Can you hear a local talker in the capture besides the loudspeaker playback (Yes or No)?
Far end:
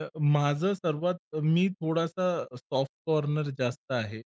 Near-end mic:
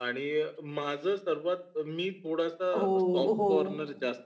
Yes